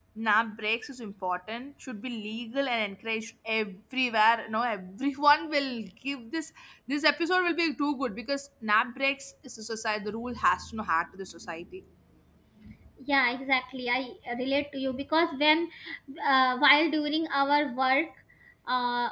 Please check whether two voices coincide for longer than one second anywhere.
No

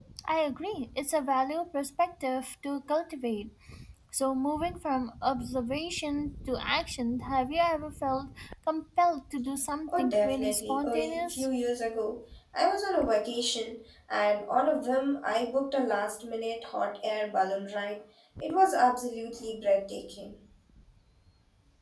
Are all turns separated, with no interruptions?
No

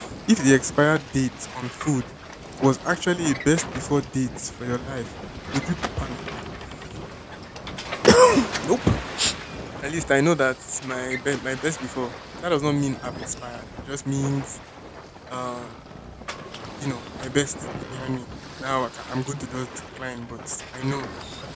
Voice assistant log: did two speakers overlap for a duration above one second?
No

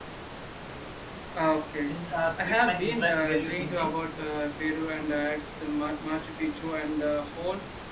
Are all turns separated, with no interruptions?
No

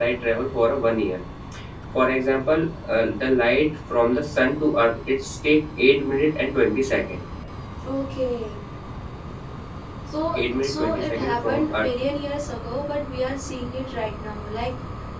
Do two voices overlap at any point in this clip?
Yes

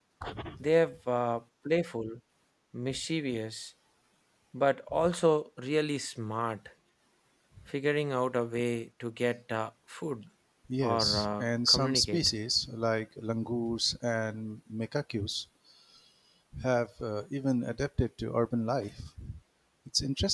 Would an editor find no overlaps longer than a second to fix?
No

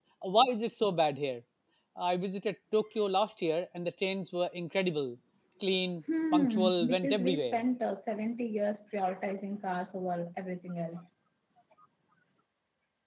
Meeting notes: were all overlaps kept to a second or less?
No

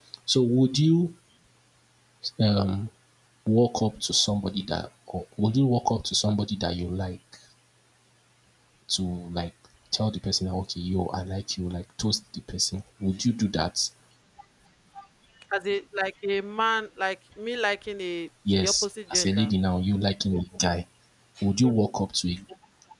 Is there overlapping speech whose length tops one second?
No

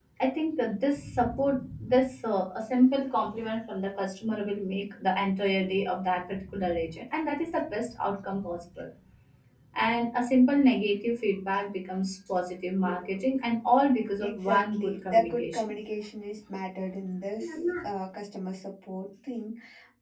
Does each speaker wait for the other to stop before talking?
No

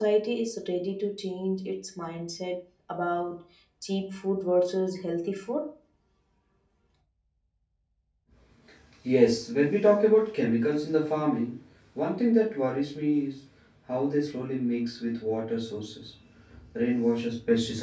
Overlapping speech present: No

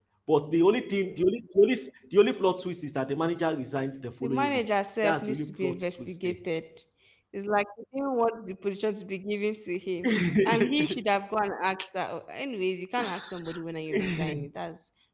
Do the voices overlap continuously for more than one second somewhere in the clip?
Yes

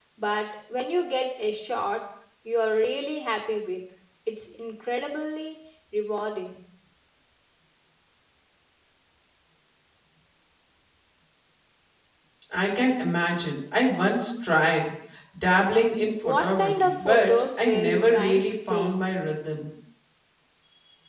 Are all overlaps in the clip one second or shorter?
No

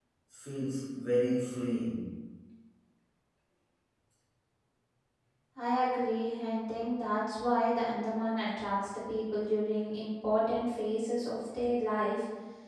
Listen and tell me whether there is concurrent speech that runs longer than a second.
No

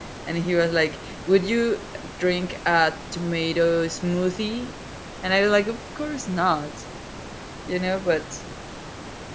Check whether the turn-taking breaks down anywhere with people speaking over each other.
No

